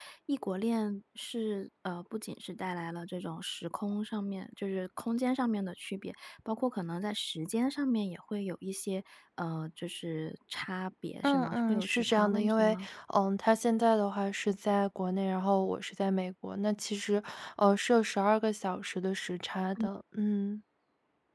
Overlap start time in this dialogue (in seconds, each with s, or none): 11.2 s